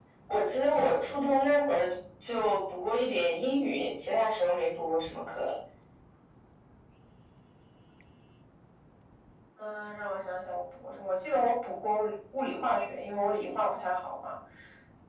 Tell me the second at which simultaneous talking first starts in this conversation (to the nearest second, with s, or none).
none